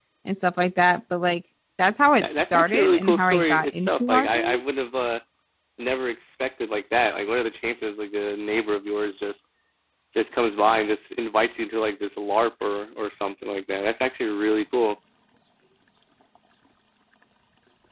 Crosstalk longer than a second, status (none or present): present